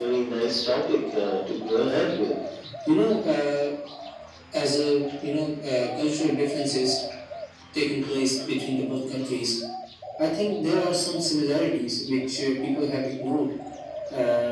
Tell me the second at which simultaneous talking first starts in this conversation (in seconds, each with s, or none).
none